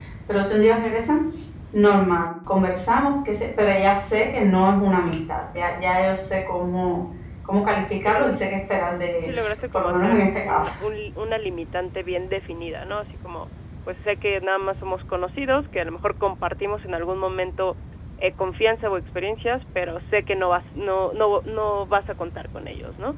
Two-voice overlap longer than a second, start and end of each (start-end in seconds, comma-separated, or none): 9.2-10.7